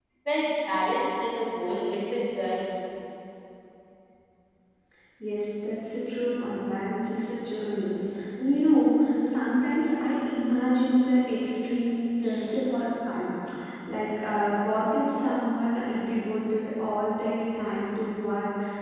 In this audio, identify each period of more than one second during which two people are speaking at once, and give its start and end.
none

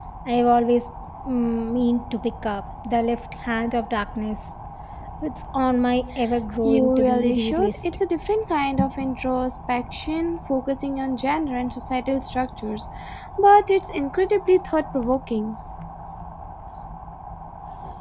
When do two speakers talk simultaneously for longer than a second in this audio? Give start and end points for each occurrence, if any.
6.6-7.8

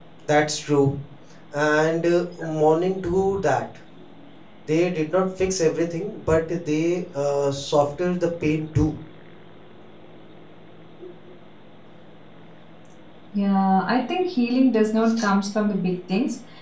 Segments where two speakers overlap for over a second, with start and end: none

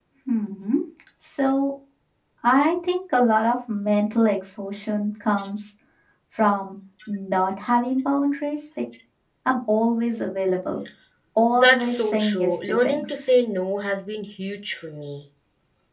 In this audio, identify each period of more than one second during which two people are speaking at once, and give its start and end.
11.6-13.3

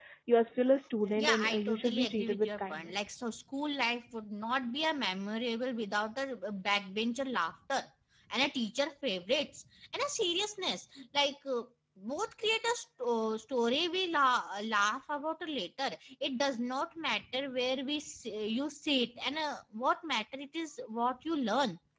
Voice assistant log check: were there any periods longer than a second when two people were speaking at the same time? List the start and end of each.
1.2-3.0

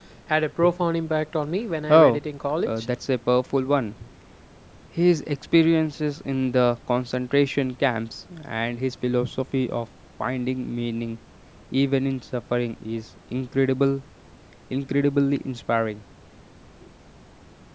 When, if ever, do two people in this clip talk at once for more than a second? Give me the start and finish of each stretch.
none

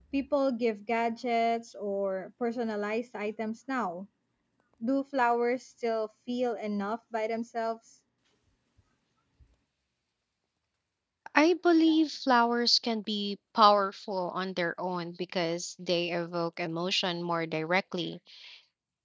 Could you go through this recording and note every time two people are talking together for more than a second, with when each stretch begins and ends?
none

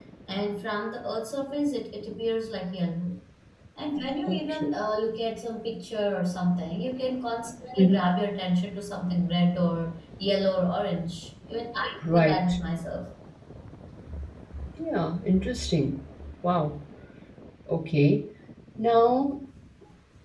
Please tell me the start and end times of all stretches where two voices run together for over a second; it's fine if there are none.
none

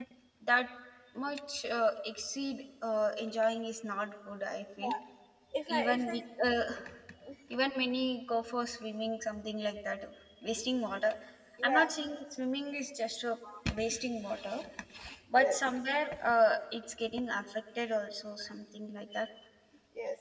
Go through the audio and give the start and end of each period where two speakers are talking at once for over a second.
none

